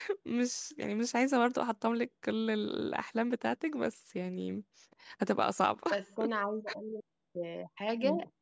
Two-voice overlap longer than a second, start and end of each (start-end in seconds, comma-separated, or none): none